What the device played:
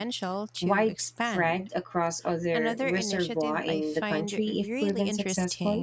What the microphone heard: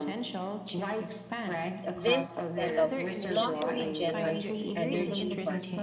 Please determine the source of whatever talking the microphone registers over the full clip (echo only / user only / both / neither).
both